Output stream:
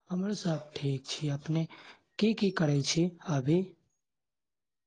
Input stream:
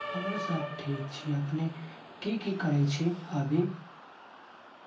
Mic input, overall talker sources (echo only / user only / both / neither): echo only